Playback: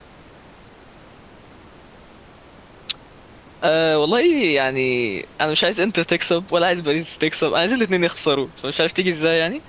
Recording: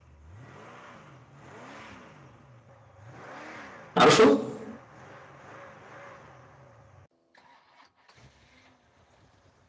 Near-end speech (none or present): present